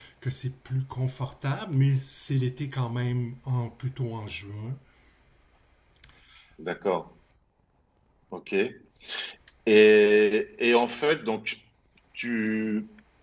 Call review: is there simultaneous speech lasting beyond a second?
No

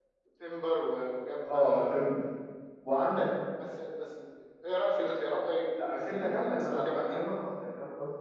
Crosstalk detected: Yes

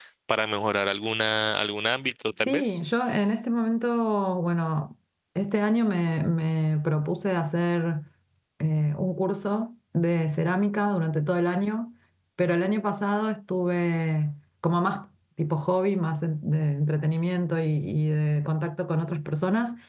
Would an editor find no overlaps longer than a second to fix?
Yes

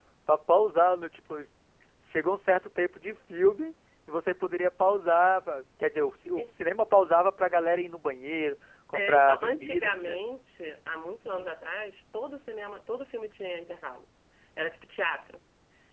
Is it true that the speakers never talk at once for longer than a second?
No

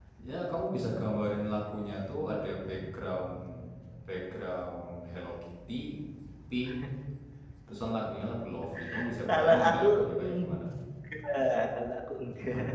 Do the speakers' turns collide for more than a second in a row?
Yes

